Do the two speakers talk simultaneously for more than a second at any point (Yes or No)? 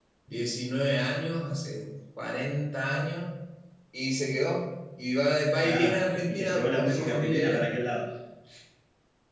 Yes